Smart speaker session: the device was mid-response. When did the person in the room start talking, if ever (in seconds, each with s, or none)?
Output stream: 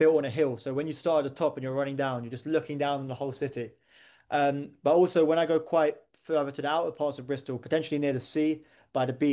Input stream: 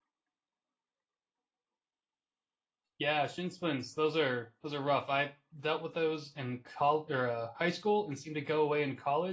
3.0 s